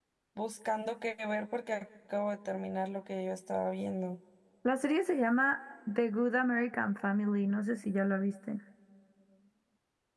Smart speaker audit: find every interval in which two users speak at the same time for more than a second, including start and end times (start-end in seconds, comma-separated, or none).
none